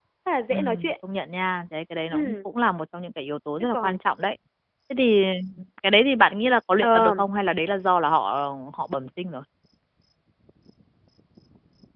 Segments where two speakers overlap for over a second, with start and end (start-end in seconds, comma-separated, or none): none